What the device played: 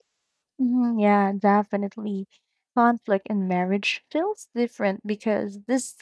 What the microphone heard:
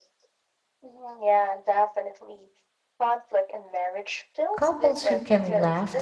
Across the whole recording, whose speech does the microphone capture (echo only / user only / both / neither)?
both